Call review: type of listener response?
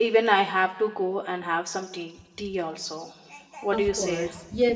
taking over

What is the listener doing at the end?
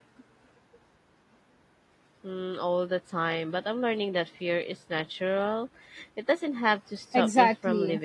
taking over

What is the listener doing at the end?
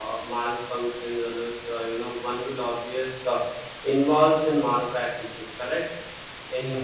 listening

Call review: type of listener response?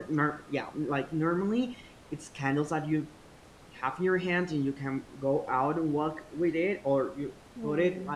listening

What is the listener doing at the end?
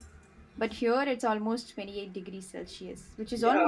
taking over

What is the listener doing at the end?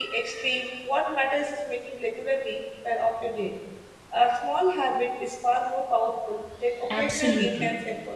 taking over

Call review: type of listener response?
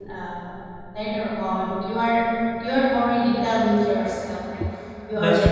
listening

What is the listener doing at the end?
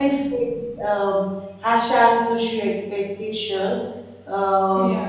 listening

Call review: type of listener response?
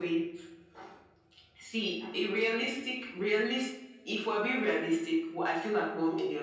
listening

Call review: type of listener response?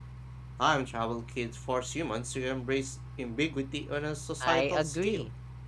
taking over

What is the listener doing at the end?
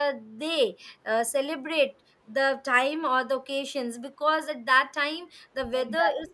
listening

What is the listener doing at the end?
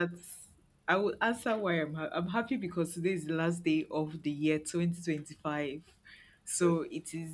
listening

